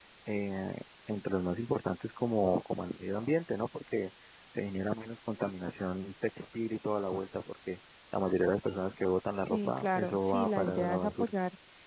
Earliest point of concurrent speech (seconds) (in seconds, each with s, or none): 9.5 s